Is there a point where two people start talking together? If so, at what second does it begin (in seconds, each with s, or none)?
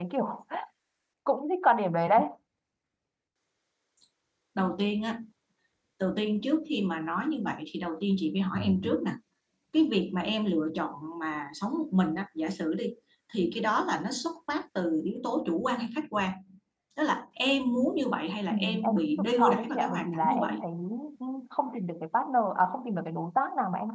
18.5 s